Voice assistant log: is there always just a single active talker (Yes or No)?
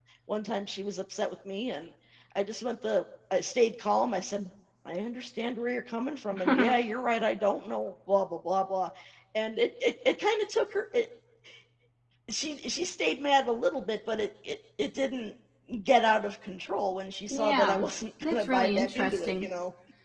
No